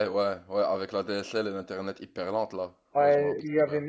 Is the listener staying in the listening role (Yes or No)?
No